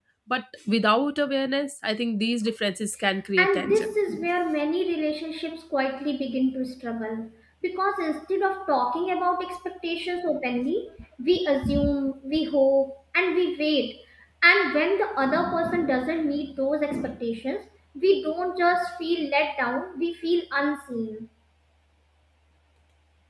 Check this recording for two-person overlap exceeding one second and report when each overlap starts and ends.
none

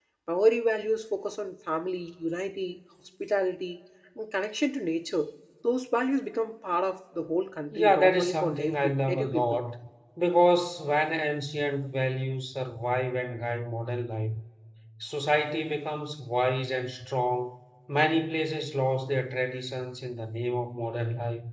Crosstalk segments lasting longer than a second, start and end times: 7.7-9.6

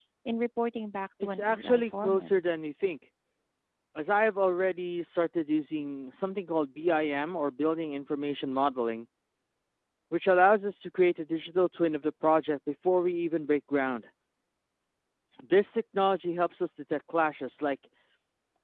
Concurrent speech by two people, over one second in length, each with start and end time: 1.2-2.5

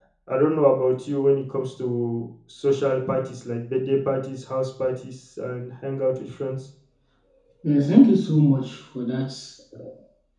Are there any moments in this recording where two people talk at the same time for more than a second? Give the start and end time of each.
none

